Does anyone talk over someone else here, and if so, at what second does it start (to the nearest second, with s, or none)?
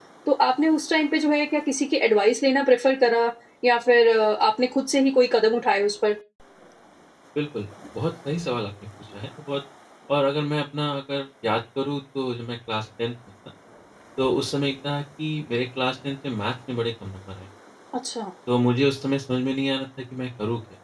none